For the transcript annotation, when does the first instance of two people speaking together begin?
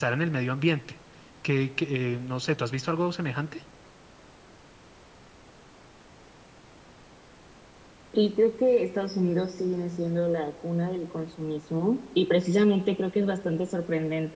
none

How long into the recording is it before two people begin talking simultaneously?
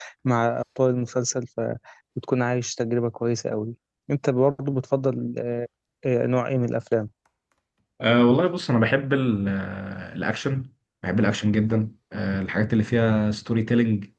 none

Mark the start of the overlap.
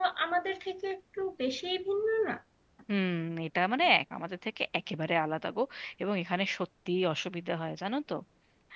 none

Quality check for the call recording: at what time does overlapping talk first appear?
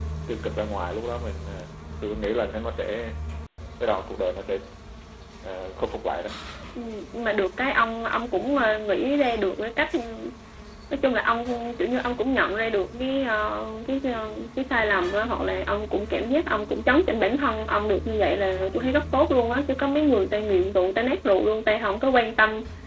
none

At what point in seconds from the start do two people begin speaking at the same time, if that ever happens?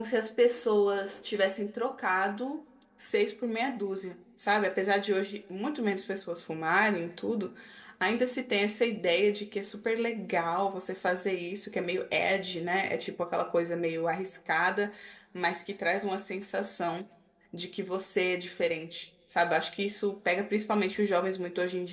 none

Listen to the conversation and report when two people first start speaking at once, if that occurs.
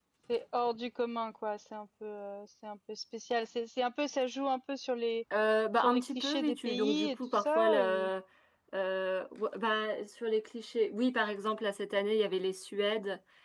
6 s

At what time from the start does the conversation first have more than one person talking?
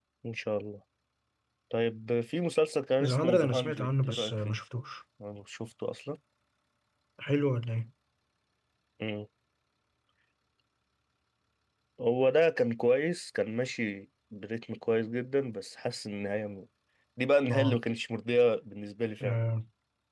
3 s

